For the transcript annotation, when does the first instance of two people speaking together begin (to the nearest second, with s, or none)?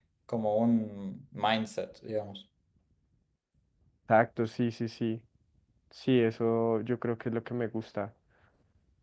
none